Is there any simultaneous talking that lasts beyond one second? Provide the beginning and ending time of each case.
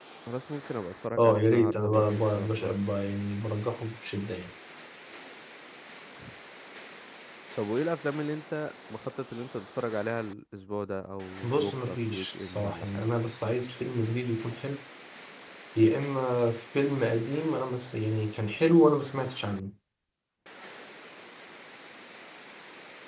1.2-2.8, 11.4-13.0

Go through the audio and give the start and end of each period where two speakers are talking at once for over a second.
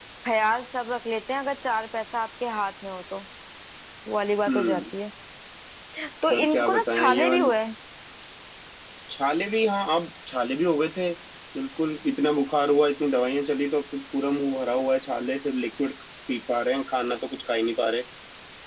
6.3-7.5

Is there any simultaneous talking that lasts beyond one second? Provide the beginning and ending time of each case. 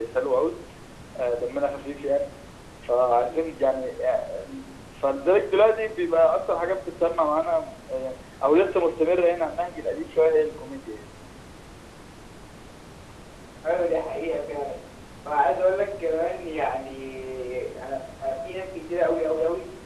none

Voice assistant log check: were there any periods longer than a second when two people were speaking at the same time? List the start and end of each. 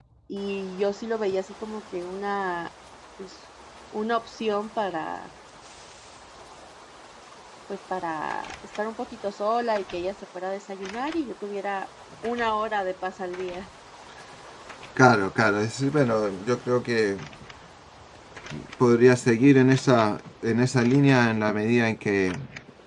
none

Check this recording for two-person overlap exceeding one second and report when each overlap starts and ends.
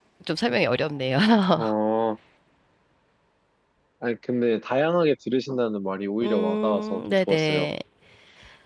6.2-7.7

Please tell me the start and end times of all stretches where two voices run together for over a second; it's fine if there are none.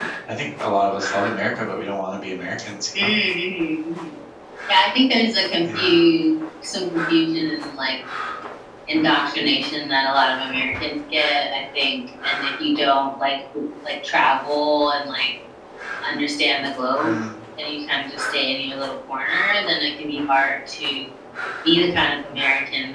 none

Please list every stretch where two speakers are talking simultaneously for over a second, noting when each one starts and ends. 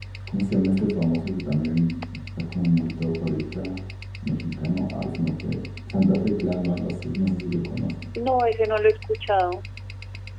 none

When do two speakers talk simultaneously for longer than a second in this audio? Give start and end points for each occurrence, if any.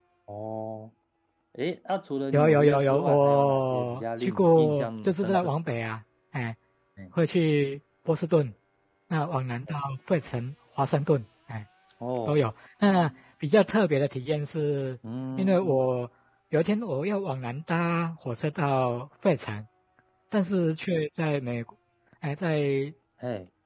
2.3-5.5

